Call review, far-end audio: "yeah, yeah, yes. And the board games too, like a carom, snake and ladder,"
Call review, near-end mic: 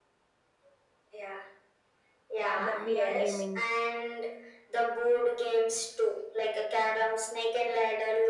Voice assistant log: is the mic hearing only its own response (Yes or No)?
No